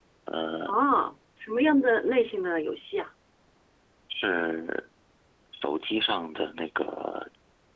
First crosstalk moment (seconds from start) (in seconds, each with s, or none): none